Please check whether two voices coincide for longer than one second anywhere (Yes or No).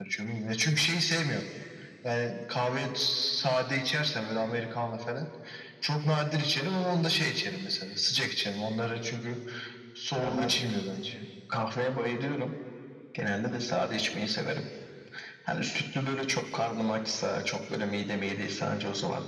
No